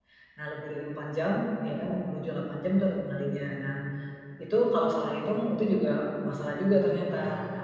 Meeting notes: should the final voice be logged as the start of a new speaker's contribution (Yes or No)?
No